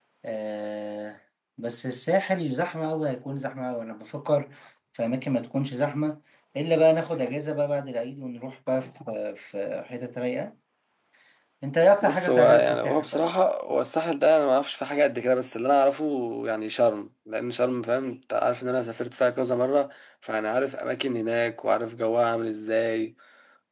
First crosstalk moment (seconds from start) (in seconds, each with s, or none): 12.0 s